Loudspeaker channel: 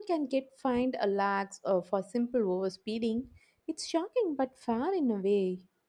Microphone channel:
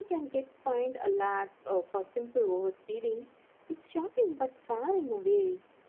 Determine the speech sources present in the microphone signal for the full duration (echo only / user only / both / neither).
echo only